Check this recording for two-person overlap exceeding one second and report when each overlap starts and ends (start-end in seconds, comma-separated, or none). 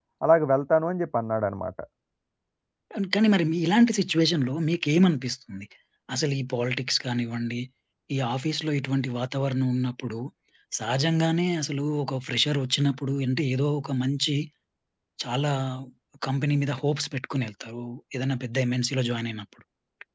none